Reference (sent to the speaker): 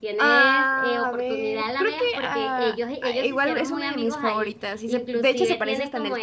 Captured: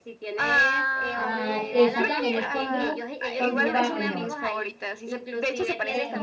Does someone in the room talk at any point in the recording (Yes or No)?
Yes